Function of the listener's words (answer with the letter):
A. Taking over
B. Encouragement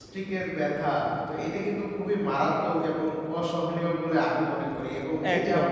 B